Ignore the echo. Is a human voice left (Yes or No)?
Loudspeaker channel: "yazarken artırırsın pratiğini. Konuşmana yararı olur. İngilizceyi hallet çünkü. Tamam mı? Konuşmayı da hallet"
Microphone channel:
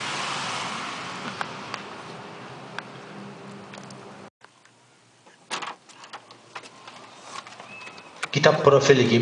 Yes